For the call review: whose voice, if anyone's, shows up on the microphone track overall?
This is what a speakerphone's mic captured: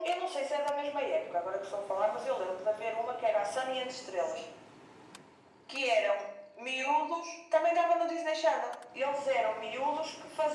echo only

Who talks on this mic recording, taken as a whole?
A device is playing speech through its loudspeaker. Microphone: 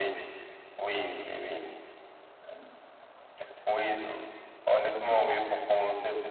echo only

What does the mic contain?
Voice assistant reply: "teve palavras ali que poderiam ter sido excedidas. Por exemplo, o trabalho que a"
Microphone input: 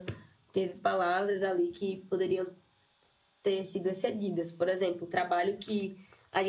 echo only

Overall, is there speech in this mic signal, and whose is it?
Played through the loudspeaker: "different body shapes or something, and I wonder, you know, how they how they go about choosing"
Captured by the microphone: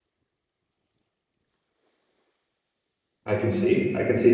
user only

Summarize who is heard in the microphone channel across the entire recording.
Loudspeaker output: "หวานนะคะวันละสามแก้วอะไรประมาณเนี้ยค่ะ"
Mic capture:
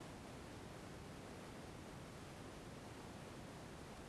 neither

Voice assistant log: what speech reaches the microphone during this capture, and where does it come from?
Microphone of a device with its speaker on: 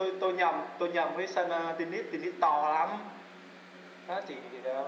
echo only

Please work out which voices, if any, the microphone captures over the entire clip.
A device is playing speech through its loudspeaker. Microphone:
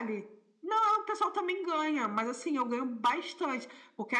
echo only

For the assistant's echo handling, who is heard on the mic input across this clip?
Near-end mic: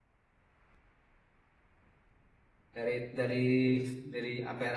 user only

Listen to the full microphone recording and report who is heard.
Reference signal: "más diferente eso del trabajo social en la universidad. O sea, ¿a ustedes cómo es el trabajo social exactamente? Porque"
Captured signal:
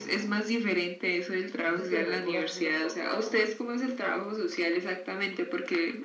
both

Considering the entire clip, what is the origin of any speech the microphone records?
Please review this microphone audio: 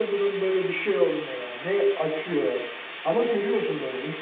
echo only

